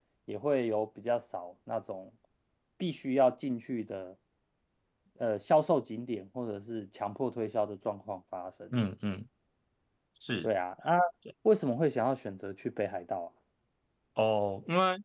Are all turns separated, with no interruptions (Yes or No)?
Yes